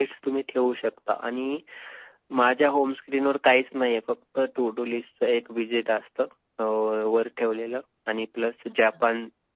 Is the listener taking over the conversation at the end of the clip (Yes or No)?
No